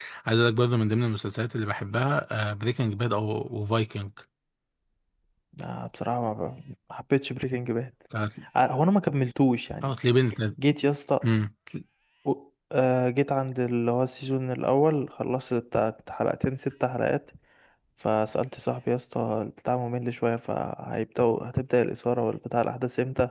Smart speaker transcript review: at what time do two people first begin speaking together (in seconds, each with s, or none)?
none